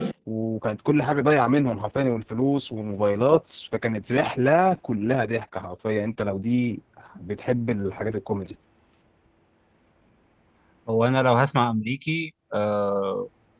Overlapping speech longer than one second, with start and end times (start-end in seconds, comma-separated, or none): none